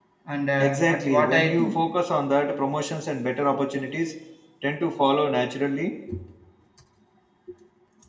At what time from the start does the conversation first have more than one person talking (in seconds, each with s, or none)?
0.6 s